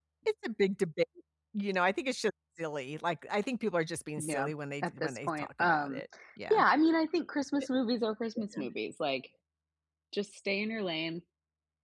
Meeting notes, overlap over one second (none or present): present